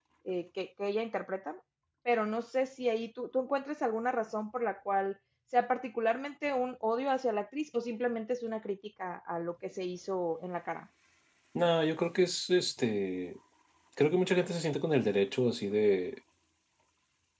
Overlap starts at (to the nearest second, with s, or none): none